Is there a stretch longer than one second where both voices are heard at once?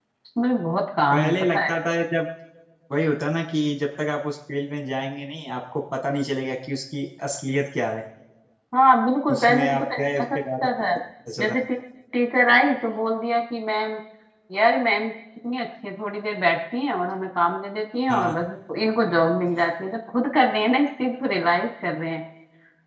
Yes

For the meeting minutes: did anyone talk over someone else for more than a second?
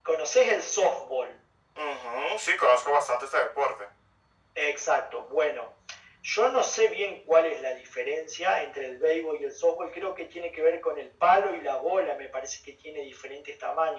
No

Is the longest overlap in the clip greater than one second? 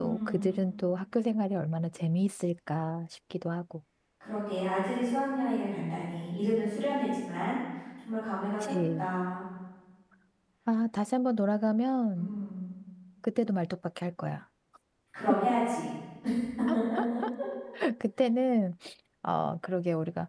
No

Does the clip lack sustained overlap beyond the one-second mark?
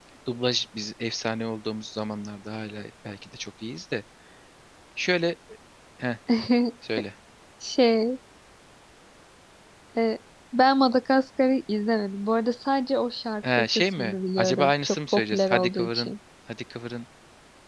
No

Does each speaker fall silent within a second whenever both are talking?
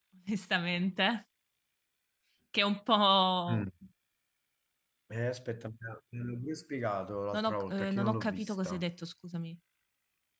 No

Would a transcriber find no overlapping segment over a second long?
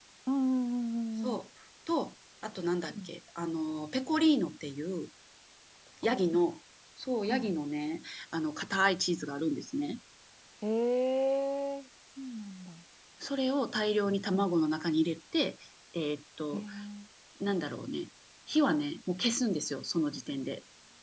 Yes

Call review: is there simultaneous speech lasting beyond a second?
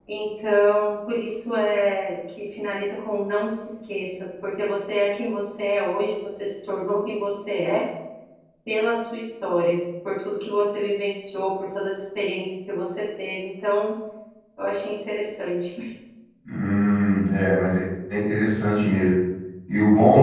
No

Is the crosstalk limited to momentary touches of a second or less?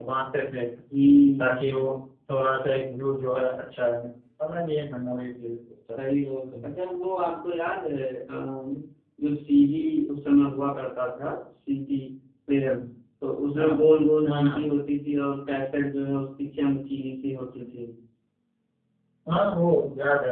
Yes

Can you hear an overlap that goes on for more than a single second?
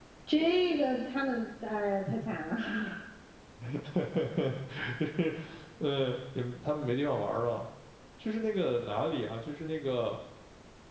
No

